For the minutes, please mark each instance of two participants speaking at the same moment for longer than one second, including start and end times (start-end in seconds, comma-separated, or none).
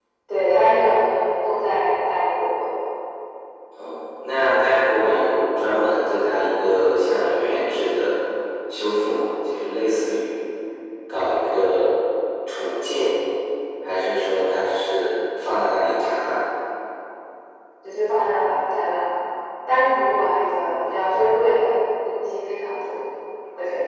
none